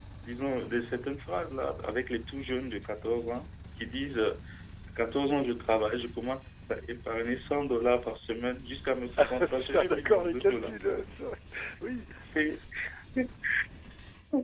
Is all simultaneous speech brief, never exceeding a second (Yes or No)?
No